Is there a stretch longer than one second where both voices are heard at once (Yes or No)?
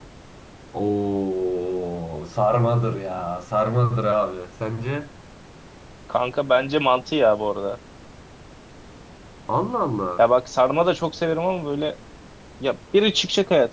No